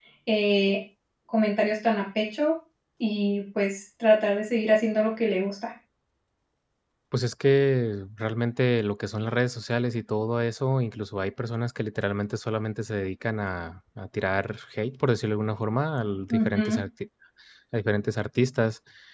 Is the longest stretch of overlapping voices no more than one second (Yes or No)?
Yes